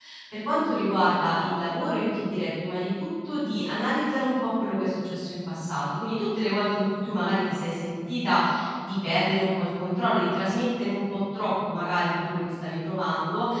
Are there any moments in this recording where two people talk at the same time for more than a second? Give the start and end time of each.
none

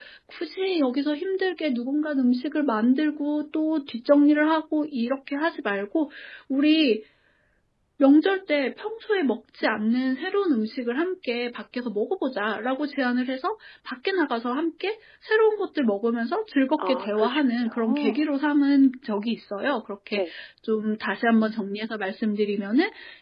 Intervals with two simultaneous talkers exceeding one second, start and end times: 16.8-18.1

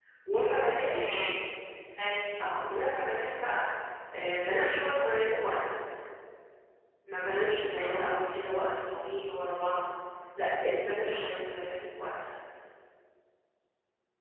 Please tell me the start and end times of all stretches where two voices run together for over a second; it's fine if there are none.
none

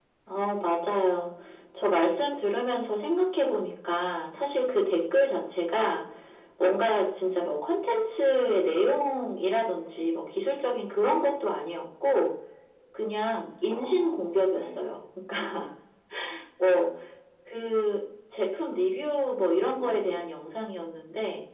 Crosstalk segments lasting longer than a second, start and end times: 13.7-15.0

